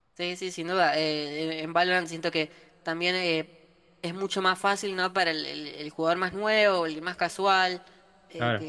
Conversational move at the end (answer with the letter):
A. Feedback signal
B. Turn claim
A